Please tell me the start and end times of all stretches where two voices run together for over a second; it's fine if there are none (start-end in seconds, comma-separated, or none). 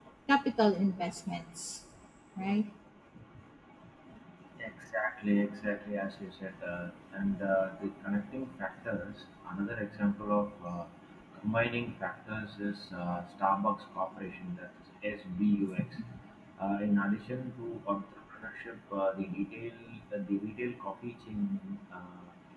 none